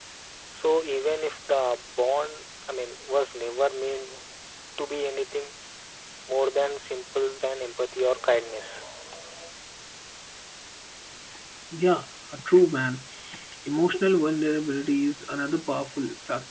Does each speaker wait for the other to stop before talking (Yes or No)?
Yes